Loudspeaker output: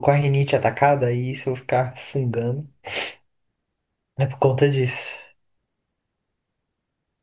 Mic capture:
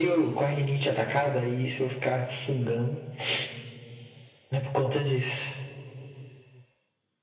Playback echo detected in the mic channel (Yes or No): Yes